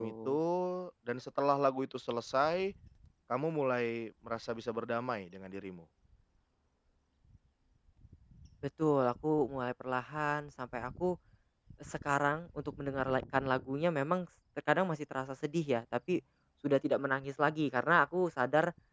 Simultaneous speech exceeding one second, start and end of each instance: none

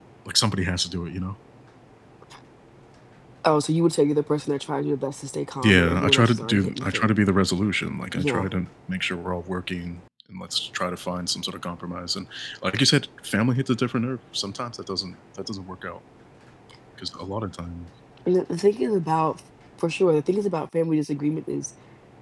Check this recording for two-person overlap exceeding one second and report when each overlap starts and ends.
5.6-7.1

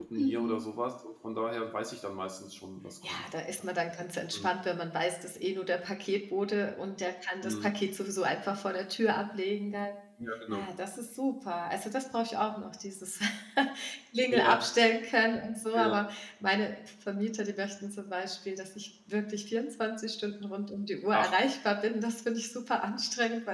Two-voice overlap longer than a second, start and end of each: none

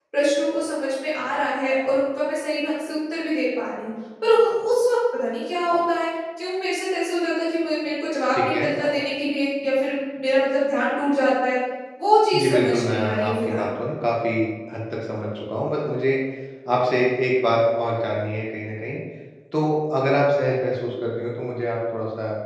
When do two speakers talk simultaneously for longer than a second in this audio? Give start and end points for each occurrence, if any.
12.3-13.7

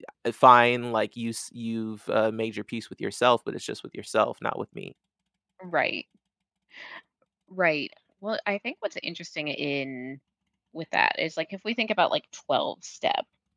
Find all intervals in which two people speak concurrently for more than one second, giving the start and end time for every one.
none

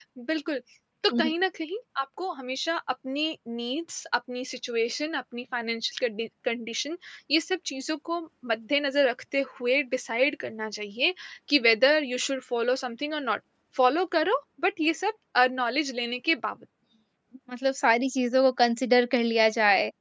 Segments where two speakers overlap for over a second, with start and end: none

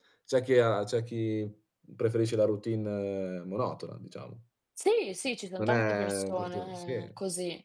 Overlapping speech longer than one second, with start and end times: 5.6-6.9

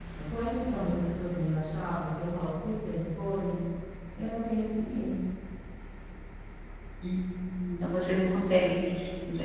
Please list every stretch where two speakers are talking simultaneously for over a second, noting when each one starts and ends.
none

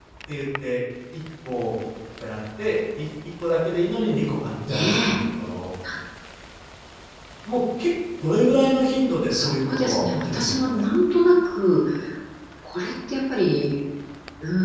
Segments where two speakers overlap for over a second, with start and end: 9.3-10.9

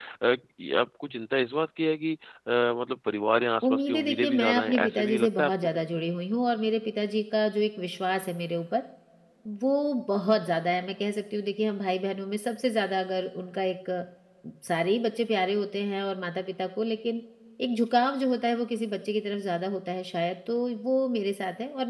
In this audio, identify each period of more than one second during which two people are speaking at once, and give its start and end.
3.6-5.8

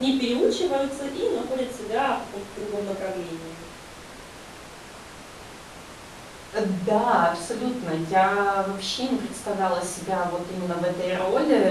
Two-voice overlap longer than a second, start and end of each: none

